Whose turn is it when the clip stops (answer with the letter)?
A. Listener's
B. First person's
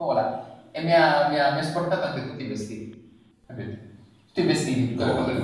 B